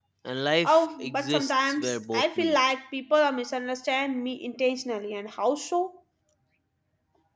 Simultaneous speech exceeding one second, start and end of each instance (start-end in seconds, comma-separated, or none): 0.6-2.5